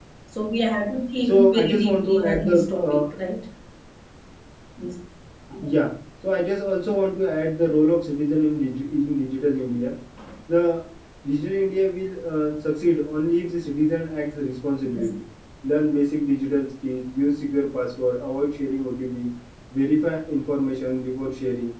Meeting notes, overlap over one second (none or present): present